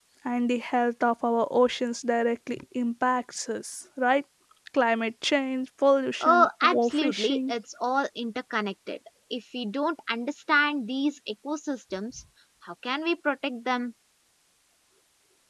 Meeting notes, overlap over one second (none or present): present